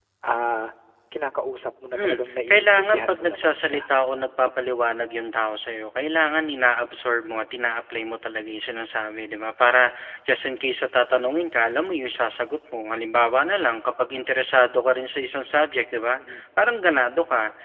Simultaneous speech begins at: 1.9 s

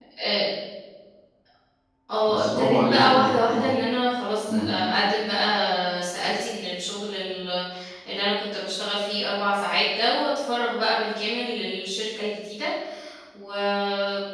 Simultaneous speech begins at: 2.3 s

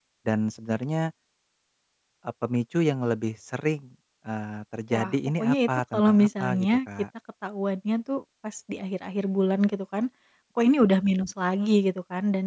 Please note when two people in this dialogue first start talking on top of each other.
4.9 s

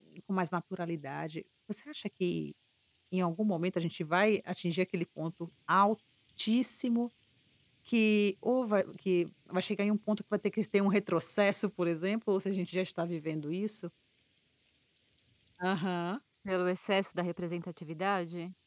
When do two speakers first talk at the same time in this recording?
none

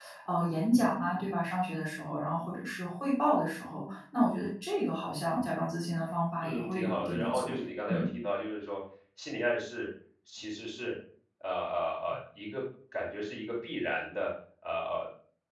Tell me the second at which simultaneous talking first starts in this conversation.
6.4 s

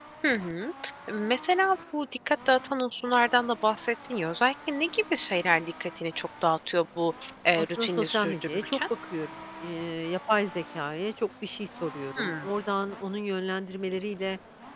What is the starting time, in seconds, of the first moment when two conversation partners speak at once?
7.6 s

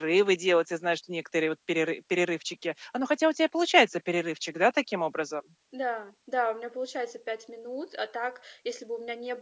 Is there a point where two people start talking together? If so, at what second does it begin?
none

